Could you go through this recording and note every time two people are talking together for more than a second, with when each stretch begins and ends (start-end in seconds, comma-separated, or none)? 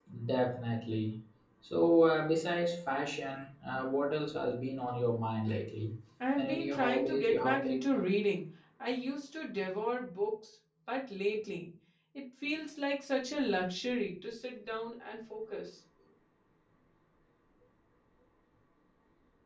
6.4-8.1